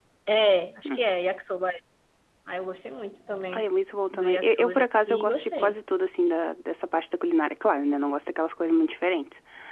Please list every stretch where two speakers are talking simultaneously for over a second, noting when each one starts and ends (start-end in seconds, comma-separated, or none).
4.1-5.8